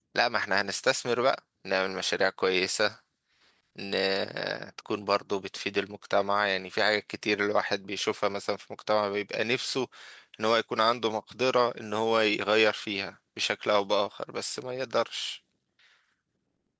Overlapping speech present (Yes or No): No